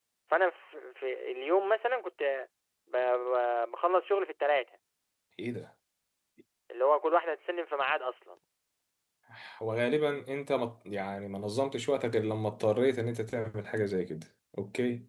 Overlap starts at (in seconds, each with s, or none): none